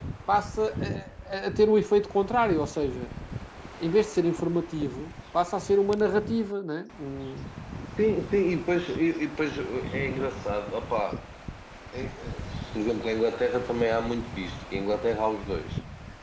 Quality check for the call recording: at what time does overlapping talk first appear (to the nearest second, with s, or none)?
none